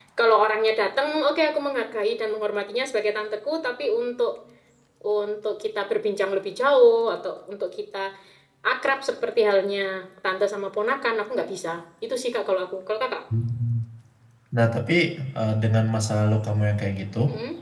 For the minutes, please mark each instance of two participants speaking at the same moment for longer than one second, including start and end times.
none

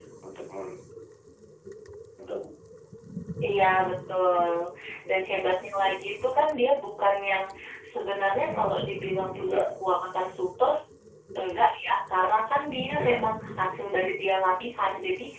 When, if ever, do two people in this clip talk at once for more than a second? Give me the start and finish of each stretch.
none

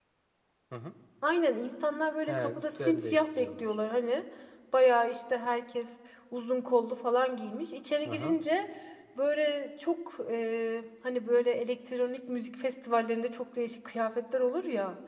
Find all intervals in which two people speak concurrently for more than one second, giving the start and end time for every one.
2.3-3.8

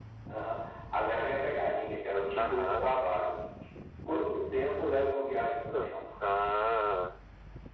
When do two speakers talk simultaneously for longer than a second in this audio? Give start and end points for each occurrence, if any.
none

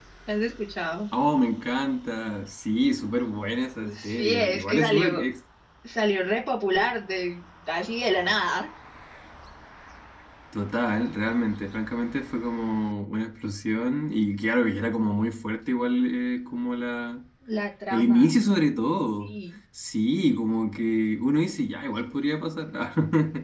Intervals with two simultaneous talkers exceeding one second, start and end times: 4.0-5.2

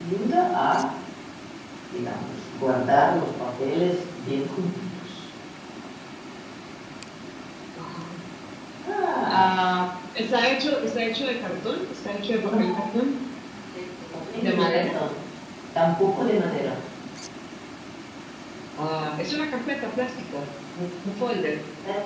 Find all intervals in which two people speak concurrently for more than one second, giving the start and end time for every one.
none

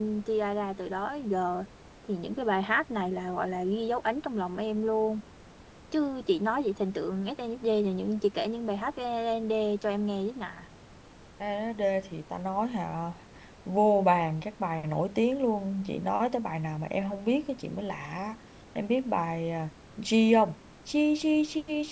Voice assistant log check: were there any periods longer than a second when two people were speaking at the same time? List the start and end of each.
none

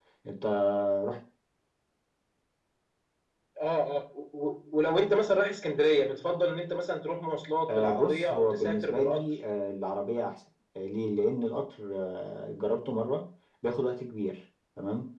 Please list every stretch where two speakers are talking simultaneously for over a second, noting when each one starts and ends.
7.7-9.2

